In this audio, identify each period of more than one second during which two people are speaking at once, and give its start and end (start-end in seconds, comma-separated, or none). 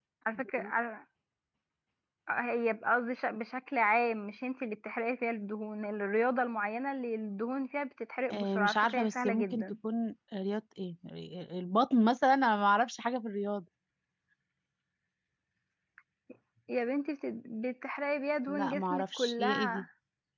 8.3-9.7, 18.5-19.8